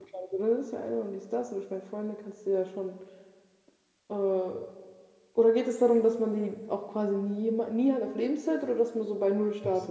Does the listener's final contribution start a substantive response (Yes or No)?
Yes